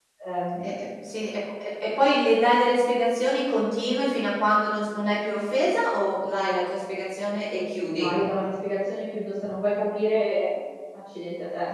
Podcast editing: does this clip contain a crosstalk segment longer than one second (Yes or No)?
No